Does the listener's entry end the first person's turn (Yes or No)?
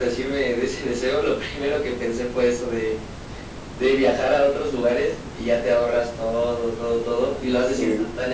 No